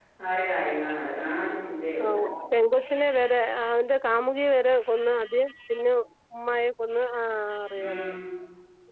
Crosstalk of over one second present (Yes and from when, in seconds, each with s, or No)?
No